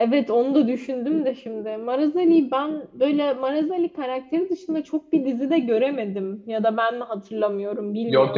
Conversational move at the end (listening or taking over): taking over